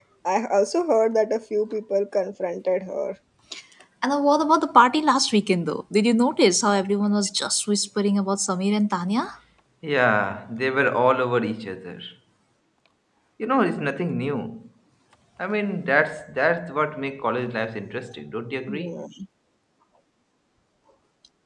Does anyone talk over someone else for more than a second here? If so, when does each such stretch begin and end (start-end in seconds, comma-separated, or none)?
none